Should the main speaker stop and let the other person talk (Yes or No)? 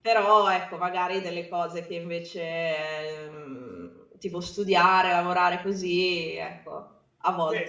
Yes